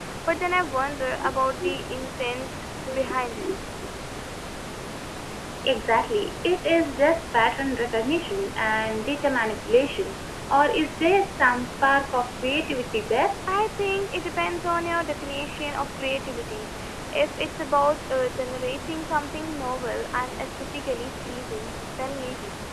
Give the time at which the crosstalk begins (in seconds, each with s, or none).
none